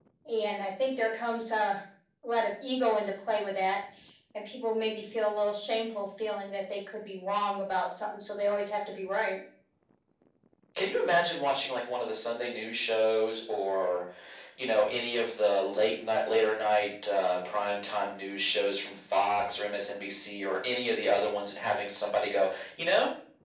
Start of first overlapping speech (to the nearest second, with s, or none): none